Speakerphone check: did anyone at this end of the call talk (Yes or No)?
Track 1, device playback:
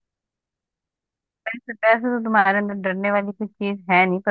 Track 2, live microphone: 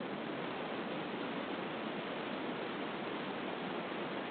No